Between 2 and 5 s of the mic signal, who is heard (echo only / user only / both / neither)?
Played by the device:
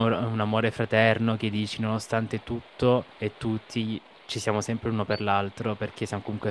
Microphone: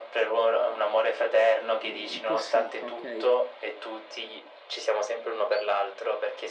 both